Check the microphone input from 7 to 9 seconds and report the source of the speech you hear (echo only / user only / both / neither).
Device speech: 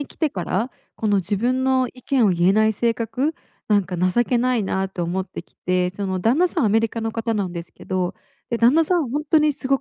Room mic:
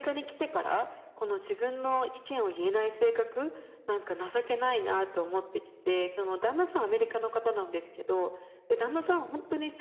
echo only